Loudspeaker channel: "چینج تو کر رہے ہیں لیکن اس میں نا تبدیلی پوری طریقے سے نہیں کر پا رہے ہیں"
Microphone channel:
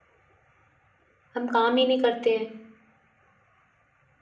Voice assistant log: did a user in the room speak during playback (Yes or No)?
Yes